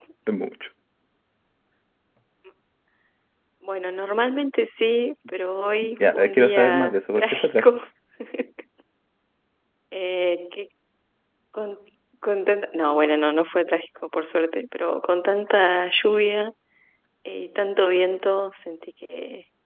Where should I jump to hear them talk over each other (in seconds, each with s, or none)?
6.0 s